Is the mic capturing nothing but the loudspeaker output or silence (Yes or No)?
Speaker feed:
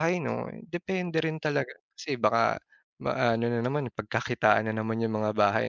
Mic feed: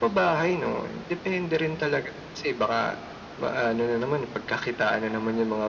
Yes